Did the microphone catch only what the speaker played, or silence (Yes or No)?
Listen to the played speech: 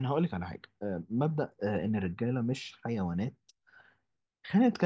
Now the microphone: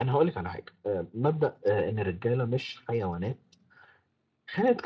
Yes